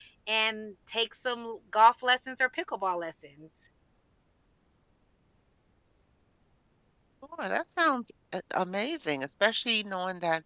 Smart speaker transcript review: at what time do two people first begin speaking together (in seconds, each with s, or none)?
none